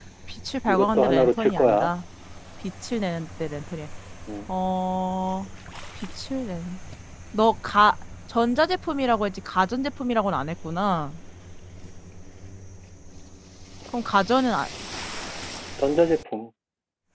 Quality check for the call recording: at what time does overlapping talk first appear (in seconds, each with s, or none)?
0.7 s